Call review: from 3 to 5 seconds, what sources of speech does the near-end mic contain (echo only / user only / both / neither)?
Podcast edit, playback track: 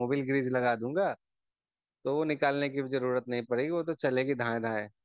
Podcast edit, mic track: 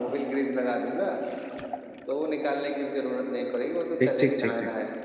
both